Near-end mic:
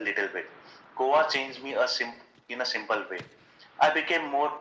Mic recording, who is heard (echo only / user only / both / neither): echo only